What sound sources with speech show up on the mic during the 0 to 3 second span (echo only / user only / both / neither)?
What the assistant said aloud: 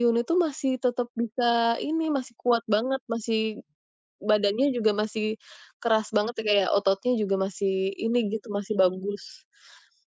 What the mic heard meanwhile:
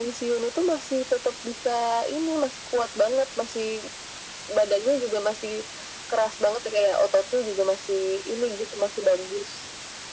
echo only